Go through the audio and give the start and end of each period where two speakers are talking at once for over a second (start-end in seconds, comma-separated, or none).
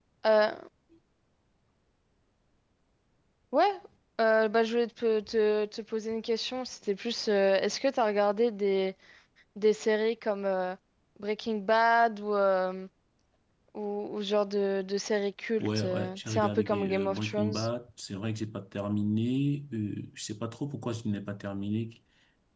15.6-17.5